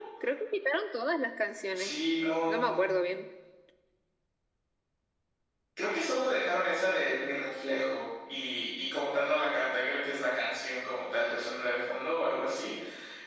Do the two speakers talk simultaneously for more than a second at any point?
No

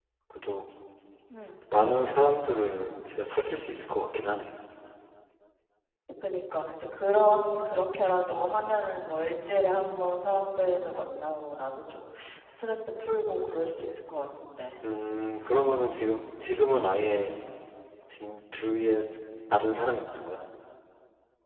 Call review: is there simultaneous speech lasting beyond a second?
No

